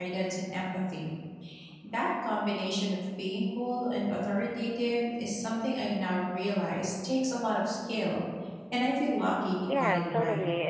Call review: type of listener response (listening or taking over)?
taking over